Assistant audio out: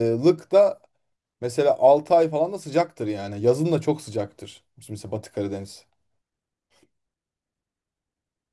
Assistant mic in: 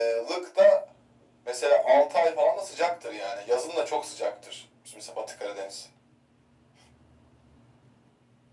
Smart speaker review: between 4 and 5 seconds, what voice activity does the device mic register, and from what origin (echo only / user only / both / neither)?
echo only